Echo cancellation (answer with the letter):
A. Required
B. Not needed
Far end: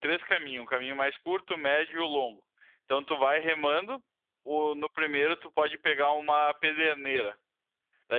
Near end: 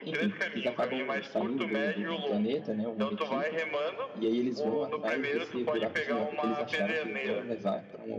A